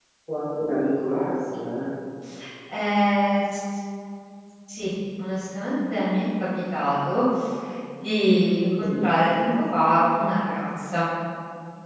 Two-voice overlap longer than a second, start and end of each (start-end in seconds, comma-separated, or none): none